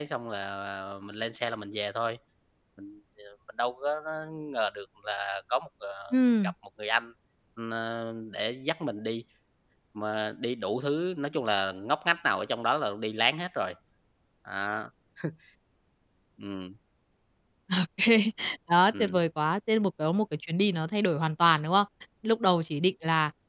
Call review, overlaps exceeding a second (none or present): none